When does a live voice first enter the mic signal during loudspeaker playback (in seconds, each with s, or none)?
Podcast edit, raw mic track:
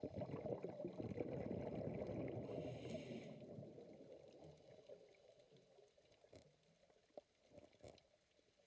none